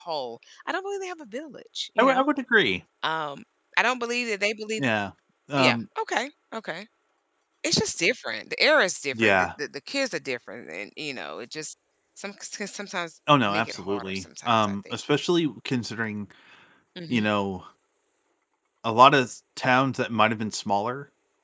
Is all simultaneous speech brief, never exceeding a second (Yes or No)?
No